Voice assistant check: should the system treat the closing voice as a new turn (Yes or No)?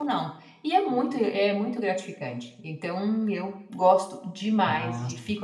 No